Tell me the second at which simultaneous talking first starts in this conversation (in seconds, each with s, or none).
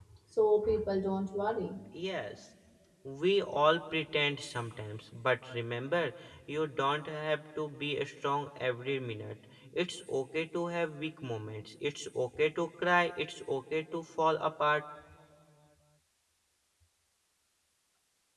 none